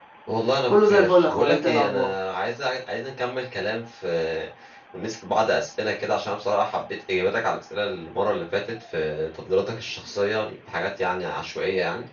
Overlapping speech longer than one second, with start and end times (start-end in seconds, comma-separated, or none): 0.7-2.1